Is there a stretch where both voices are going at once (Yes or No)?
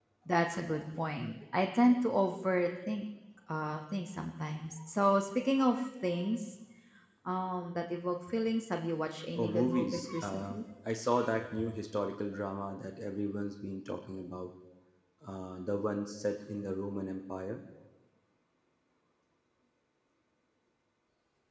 Yes